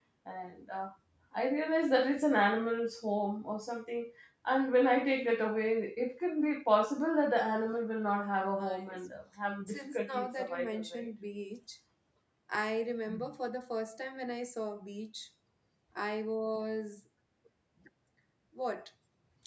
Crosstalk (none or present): present